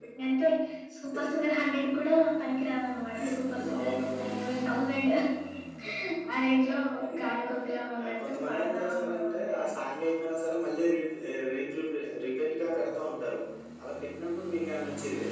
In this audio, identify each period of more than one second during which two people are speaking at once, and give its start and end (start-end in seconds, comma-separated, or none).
8.0-9.6